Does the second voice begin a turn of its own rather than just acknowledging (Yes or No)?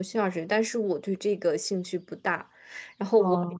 No